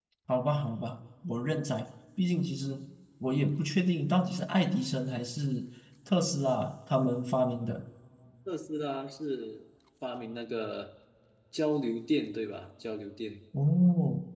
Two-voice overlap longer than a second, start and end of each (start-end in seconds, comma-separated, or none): none